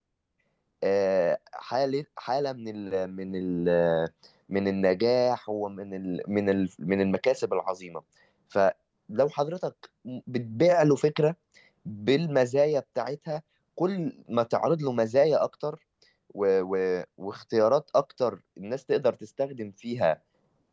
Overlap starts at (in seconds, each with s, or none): none